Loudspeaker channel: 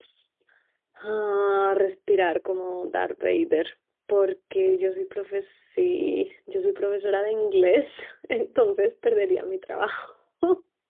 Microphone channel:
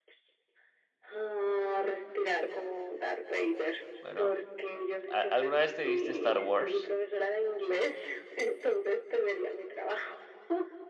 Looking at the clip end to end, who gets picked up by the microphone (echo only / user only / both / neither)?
both